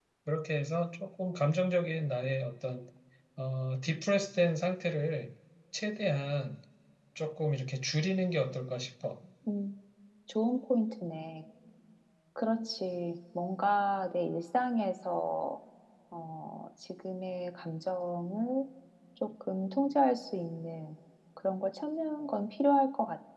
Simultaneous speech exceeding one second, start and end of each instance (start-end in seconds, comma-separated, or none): none